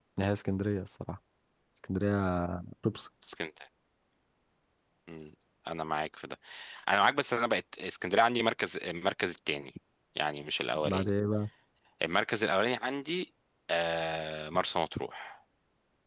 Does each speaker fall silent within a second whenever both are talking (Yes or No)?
Yes